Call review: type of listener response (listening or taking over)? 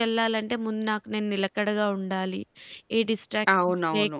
taking over